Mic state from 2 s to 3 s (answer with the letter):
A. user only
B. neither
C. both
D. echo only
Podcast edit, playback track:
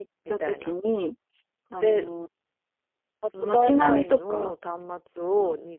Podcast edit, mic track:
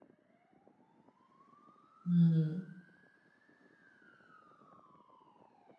A